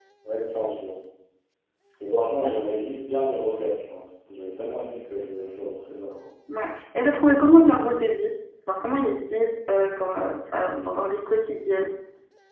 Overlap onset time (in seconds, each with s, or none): none